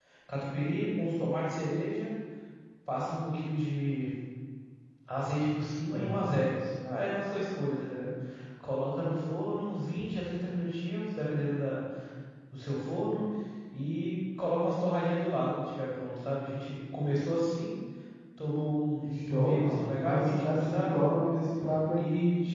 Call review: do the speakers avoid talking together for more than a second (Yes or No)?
No